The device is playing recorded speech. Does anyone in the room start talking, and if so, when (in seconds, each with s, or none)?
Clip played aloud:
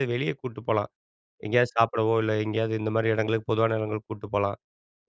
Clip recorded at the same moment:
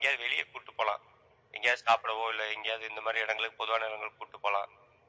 none